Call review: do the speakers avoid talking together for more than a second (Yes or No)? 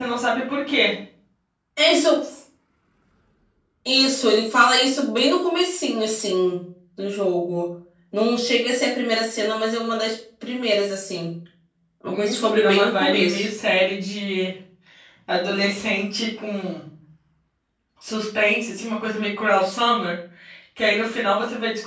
No